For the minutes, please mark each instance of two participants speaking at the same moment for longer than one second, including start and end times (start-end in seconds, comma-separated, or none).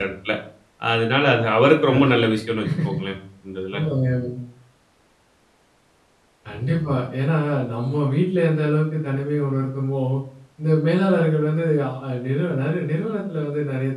none